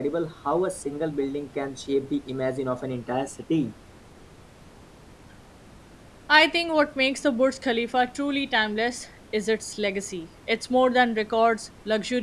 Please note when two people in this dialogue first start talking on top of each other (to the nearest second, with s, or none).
none